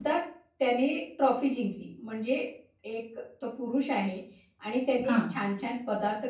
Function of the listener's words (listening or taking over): listening